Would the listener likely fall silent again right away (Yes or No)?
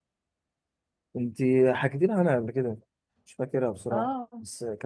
No